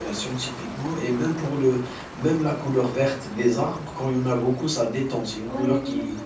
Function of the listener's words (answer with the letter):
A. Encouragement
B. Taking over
B